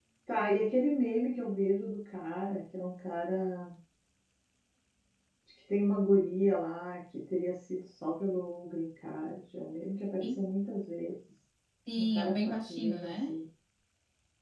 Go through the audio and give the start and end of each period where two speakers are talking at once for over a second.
12.0-13.2

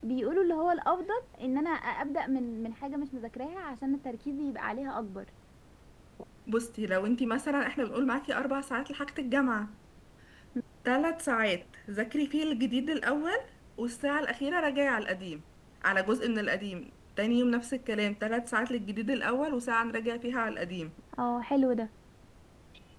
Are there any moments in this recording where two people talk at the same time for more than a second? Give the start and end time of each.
none

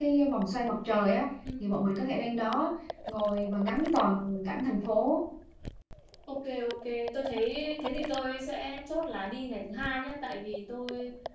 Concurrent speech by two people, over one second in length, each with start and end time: none

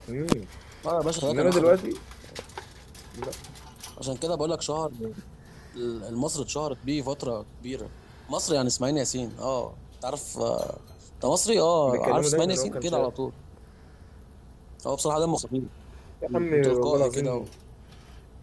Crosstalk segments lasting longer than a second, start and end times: 11.9-13.1, 16.3-17.5

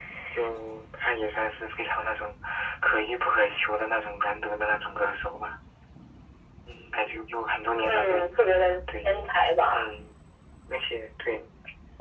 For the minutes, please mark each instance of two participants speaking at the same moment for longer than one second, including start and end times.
7.8-9.1

